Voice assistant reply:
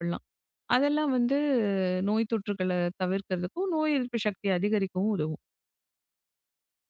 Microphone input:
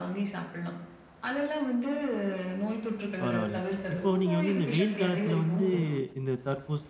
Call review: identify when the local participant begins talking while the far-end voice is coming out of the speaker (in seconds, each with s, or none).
3.2 s